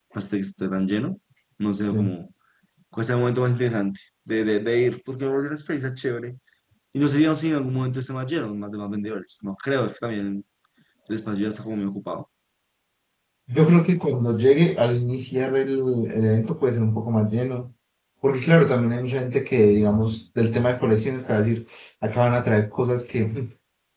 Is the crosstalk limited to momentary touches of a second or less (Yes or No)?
Yes